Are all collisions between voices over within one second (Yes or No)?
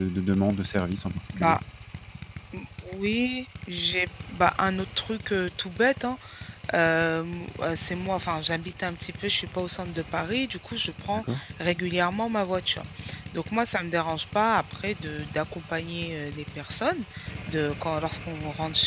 Yes